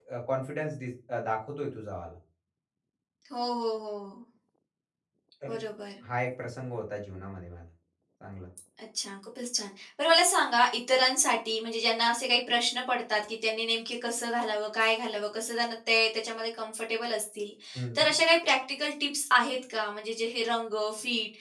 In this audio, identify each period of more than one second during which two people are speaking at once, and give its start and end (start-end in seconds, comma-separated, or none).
none